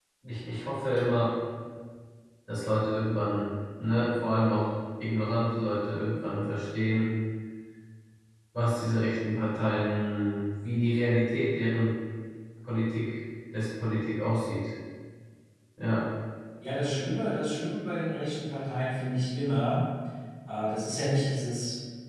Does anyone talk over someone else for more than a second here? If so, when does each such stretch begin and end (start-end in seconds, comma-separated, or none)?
none